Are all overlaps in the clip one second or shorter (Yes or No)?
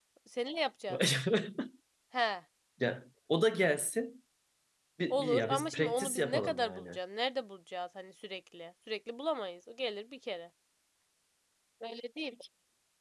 No